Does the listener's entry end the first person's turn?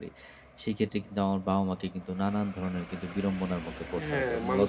Yes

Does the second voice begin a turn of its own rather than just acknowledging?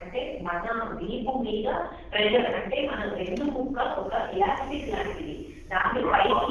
No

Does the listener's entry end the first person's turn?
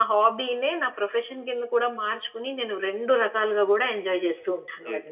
Yes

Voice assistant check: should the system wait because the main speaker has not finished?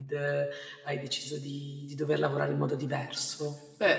No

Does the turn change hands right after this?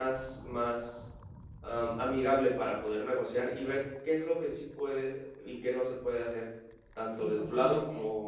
No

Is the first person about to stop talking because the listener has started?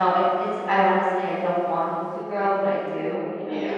Yes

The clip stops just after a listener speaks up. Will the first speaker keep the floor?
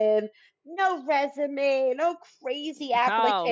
No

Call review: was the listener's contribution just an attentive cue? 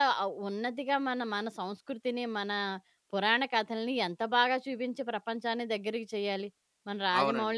No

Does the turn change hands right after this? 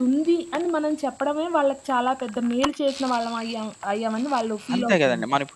Yes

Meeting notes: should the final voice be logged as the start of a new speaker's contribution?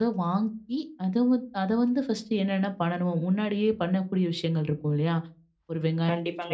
Yes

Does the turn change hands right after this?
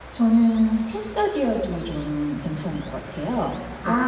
Yes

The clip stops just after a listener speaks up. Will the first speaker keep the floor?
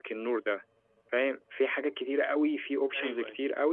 Yes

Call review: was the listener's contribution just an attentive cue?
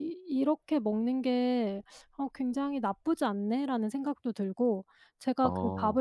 Yes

